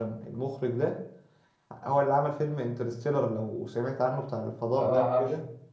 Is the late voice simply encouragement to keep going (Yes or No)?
No